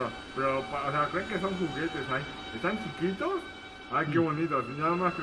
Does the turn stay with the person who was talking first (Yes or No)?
Yes